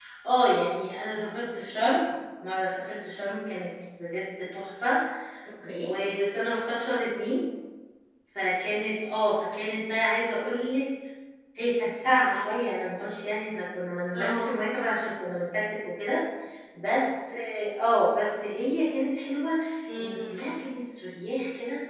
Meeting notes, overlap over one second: none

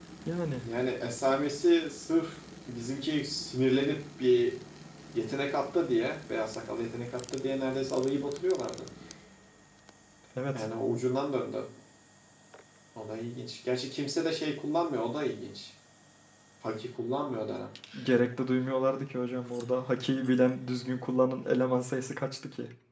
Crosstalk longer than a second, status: none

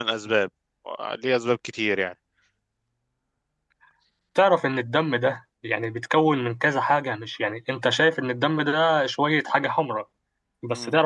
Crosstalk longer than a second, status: none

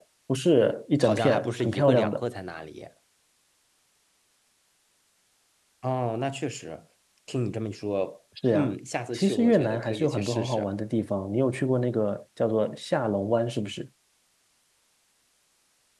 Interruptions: present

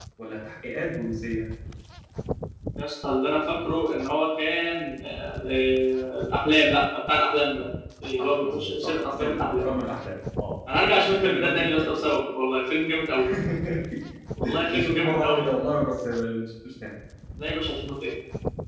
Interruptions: present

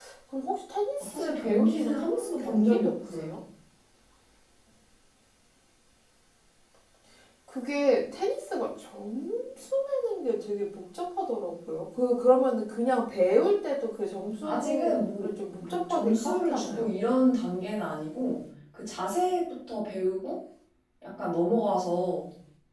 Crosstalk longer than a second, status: present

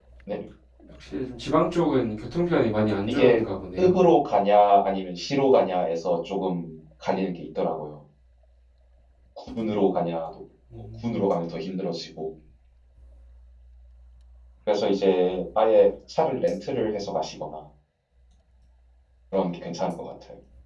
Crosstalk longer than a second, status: none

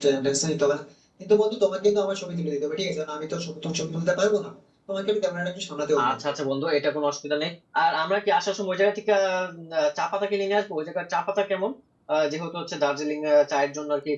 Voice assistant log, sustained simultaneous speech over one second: none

